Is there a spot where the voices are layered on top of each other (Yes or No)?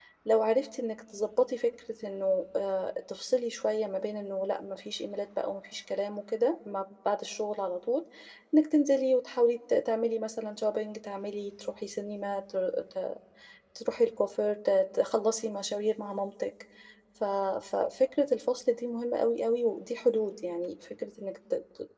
No